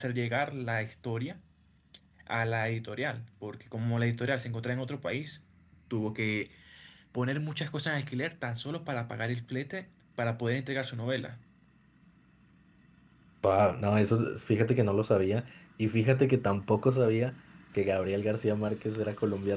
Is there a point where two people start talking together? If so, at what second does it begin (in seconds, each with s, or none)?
none